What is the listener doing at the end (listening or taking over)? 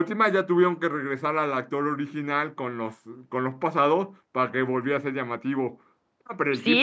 taking over